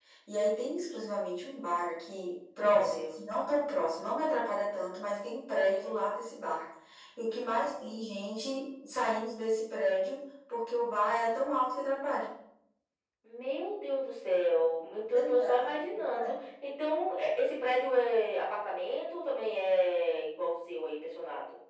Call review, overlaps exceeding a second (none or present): present